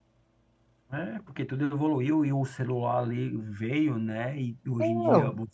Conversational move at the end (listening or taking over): listening